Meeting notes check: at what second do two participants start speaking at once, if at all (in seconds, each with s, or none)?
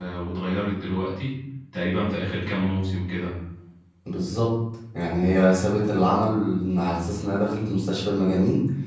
none